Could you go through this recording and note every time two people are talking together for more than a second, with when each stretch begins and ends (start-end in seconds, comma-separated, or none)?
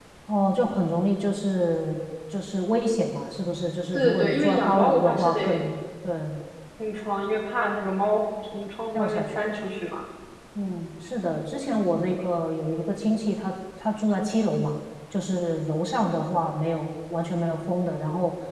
3.9-5.7